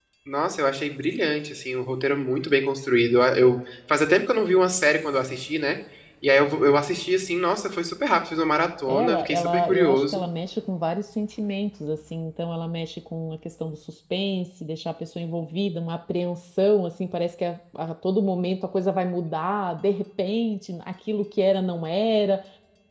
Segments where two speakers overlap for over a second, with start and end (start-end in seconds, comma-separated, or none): 8.9-10.2